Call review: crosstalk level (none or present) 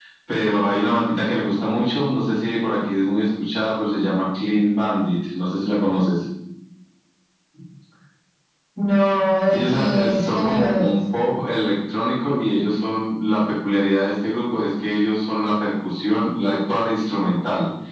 present